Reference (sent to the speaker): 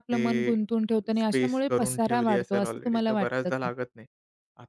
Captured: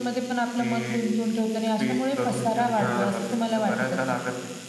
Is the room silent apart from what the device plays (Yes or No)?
No